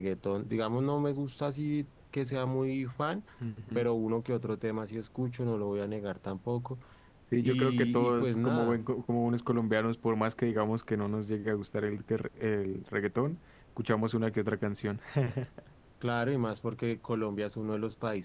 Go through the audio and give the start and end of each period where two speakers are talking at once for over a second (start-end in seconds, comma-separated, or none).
7.4-8.8